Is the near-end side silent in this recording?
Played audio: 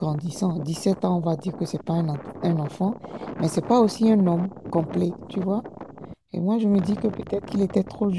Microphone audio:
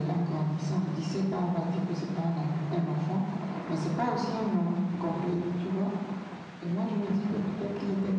Yes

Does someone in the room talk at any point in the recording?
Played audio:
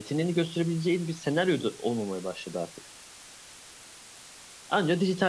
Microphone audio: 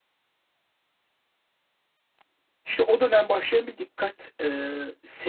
Yes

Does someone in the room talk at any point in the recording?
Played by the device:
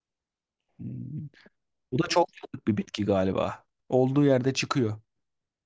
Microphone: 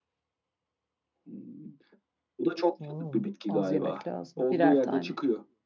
Yes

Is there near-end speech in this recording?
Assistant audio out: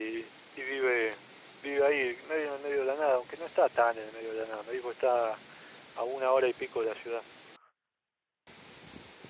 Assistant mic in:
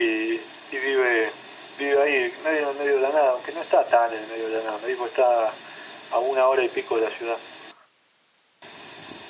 No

